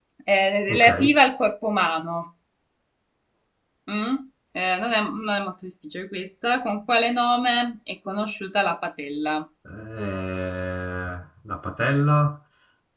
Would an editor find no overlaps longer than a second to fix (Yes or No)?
Yes